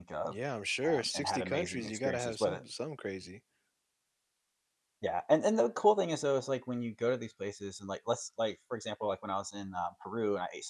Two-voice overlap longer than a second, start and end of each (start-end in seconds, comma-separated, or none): 0.9-2.6